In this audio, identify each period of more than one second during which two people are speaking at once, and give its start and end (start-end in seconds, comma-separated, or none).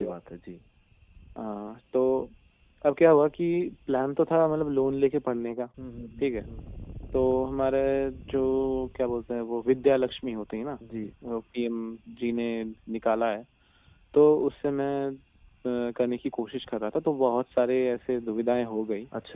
none